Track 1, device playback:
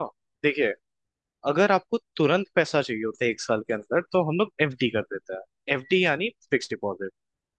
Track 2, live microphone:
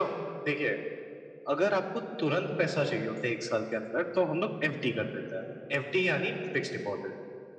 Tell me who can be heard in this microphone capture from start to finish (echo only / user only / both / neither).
echo only